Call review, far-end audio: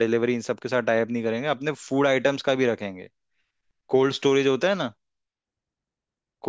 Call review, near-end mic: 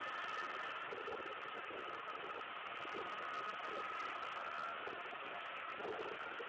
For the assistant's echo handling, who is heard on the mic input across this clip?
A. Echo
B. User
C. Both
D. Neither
D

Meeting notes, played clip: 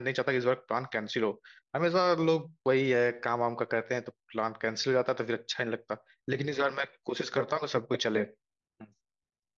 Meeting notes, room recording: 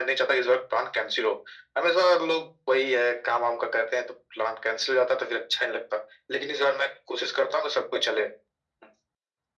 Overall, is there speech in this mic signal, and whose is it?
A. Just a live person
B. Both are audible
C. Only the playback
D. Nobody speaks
C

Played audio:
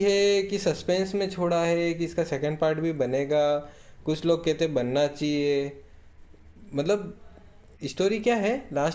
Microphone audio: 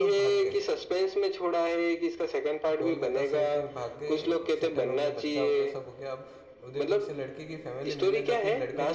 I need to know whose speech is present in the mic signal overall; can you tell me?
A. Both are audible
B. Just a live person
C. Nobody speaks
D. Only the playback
A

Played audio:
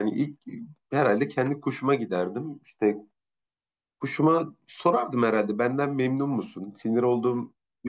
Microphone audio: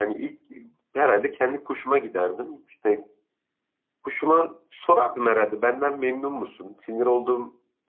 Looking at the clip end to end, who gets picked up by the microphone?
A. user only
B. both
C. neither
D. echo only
D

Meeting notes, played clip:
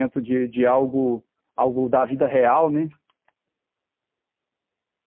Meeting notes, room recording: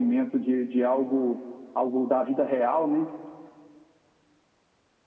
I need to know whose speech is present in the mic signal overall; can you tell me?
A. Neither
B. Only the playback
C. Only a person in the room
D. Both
B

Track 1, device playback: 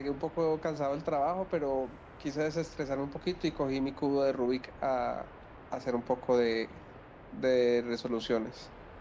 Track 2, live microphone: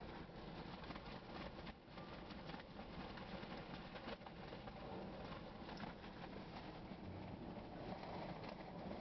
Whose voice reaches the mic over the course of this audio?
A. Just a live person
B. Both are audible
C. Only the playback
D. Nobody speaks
D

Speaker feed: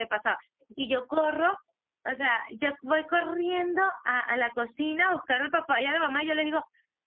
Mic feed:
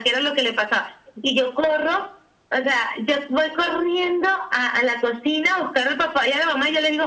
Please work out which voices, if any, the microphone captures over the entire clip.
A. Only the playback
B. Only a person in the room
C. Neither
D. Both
A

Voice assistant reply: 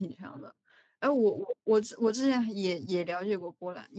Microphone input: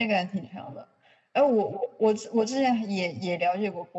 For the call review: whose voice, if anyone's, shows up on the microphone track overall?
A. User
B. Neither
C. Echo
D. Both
C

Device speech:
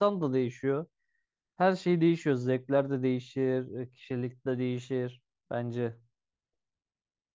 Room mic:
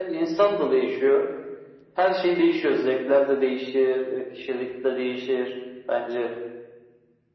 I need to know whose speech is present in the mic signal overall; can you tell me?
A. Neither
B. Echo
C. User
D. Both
B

